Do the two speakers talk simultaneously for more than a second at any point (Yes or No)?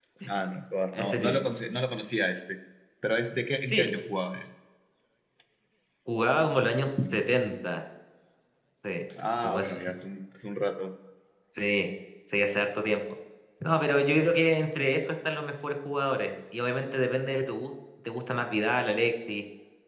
No